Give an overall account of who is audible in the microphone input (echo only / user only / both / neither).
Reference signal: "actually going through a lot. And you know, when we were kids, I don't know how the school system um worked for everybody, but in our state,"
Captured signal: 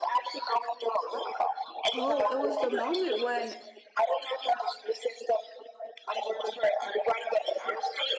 both